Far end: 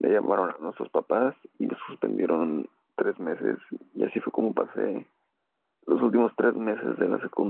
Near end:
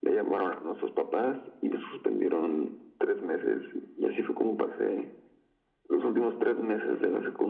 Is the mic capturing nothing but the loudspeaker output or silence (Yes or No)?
Yes